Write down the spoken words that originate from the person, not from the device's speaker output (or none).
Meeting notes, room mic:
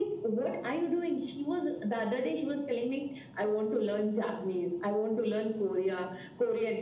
none